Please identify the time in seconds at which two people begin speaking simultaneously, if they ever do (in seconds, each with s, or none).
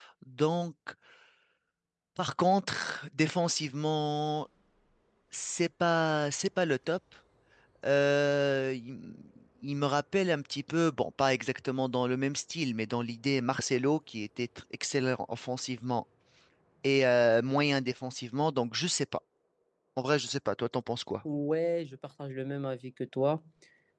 none